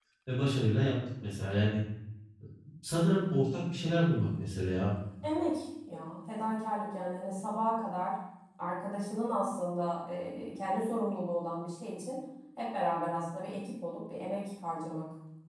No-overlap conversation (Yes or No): Yes